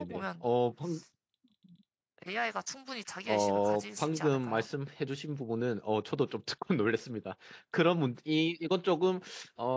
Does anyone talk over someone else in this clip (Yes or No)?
Yes